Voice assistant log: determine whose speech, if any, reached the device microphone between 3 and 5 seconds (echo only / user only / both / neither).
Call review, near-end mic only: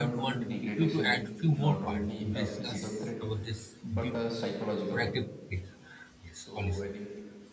both